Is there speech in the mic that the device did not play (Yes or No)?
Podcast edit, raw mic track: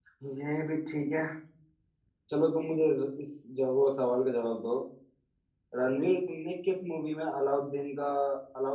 Yes